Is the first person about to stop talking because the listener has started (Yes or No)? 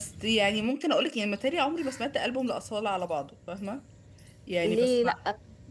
Yes